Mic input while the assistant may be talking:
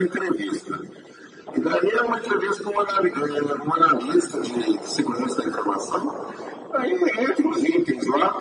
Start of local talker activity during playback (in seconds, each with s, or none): none